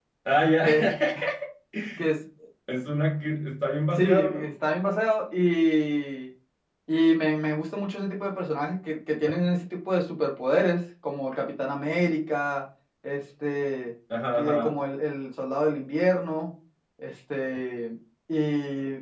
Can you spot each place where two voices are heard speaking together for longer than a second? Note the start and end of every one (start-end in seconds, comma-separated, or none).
none